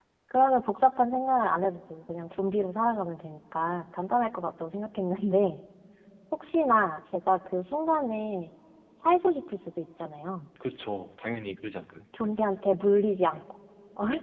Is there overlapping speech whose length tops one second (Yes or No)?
No